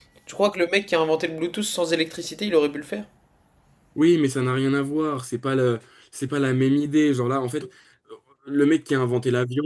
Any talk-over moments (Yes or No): No